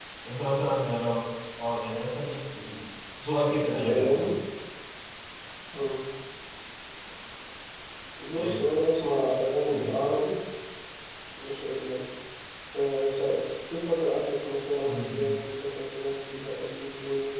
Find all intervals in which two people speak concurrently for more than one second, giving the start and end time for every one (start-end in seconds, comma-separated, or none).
none